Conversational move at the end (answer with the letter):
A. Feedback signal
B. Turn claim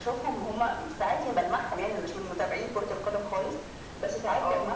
A